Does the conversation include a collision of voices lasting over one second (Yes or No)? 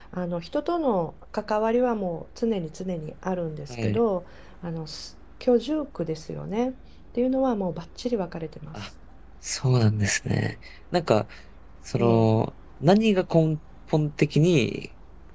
No